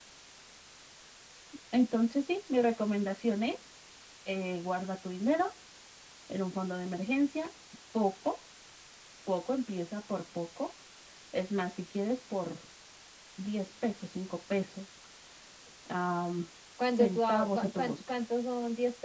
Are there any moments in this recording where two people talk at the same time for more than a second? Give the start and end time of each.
16.9-18.2

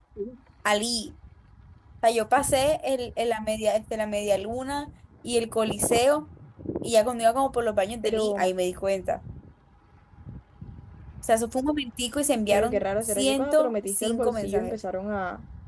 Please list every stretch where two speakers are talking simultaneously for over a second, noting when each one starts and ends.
12.5-14.8

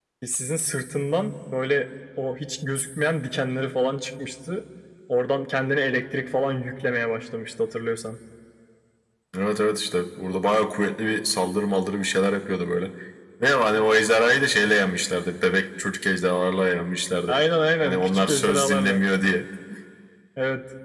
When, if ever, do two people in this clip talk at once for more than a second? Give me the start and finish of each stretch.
17.8-19.1

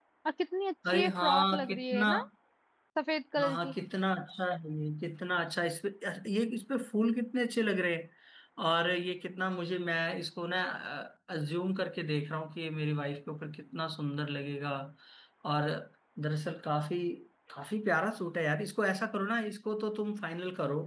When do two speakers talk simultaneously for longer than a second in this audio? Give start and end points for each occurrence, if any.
0.9-2.1

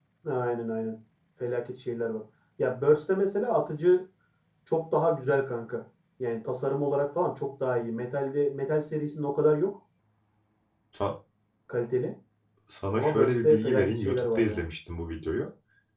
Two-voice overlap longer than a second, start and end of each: 12.9-14.6

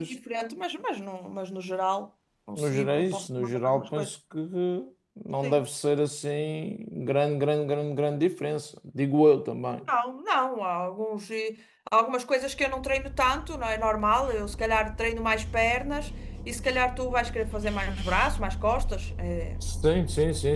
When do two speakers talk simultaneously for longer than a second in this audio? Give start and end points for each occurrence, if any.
2.6-4.1

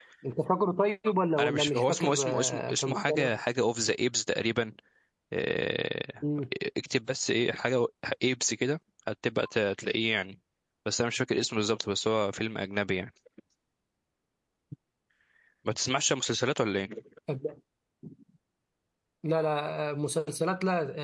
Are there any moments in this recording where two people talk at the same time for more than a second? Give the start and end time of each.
1.4-3.3

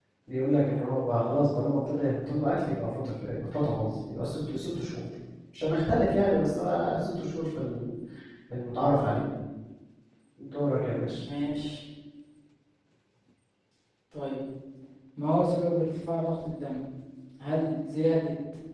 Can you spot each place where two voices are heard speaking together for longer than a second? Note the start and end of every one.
none

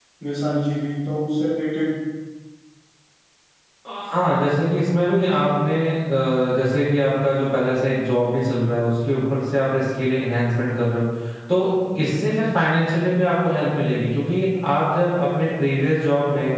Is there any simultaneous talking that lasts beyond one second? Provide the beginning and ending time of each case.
none

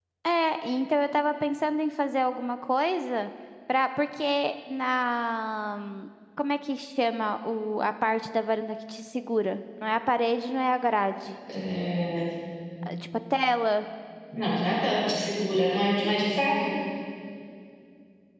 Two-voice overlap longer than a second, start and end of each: none

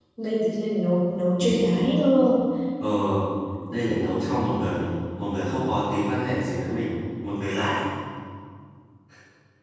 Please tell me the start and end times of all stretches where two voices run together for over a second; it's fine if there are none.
none

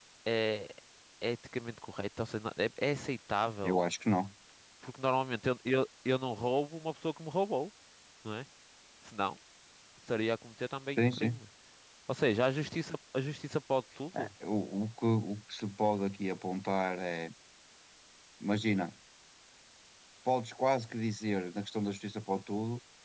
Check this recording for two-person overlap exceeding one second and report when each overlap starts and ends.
none

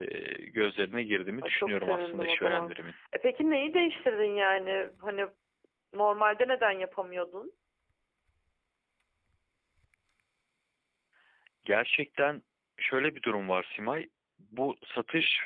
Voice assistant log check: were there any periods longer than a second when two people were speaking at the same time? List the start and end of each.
1.4-2.7

